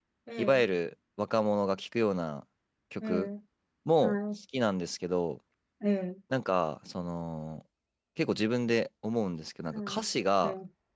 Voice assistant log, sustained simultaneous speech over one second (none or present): none